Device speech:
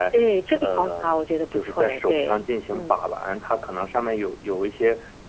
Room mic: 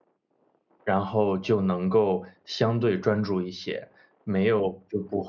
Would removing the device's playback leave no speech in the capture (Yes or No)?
No